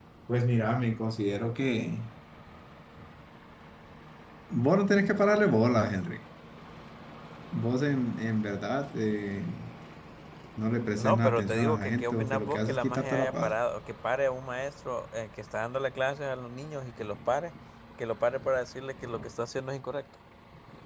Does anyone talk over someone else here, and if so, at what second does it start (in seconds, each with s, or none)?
11.0 s